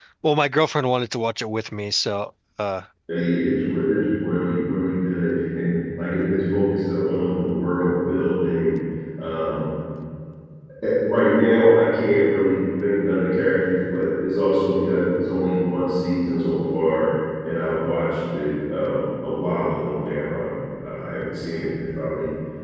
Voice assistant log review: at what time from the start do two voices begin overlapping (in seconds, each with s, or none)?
none